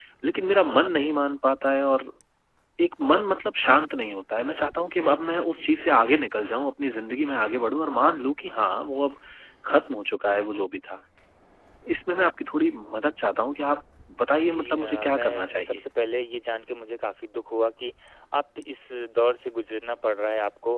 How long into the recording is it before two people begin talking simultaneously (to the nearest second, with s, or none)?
14 s